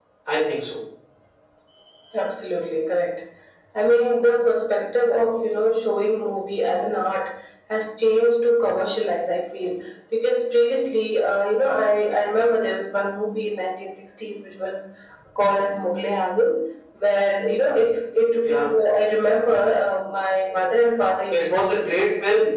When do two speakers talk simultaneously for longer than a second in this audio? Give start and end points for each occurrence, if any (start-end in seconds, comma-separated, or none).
none